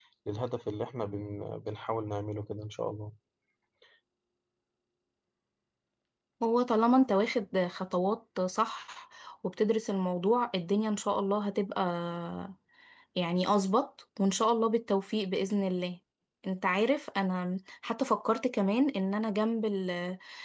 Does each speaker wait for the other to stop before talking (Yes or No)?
Yes